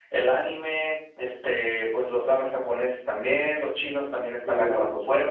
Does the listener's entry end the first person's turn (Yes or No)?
No